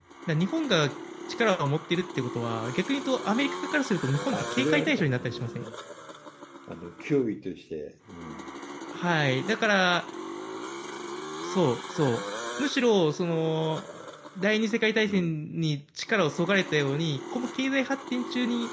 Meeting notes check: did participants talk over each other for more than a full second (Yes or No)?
Yes